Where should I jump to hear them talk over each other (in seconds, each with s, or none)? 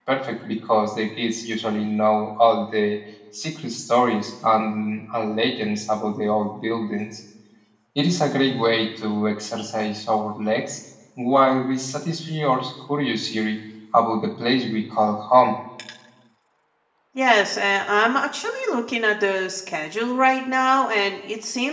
none